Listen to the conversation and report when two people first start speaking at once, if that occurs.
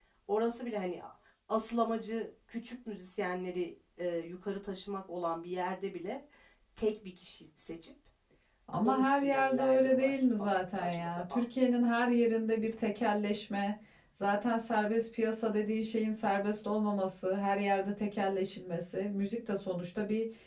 8.8 s

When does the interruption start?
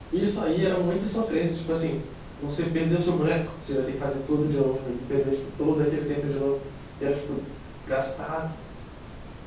none

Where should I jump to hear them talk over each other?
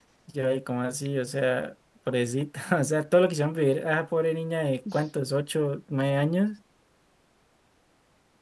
none

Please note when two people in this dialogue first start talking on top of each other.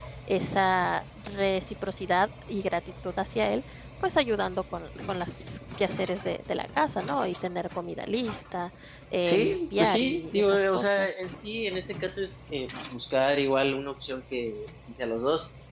9.2 s

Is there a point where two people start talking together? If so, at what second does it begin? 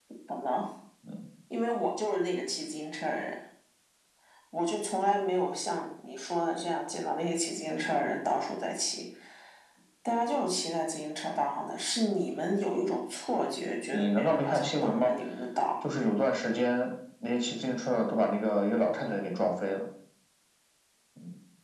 13.9 s

